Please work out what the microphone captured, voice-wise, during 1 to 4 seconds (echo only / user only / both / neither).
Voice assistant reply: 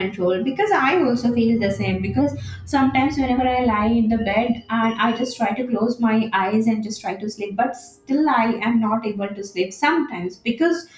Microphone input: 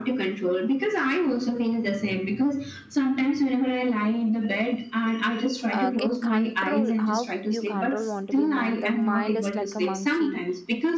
echo only